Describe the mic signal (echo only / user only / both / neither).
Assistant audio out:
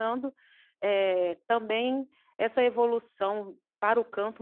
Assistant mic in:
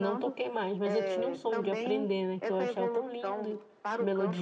both